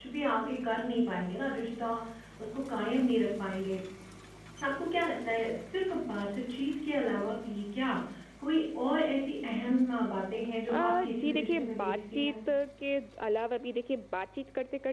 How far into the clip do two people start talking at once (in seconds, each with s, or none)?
10.7 s